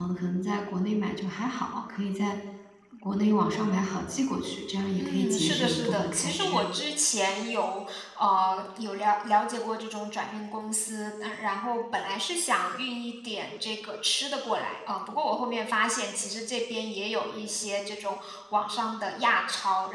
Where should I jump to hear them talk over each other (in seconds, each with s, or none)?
5.0 s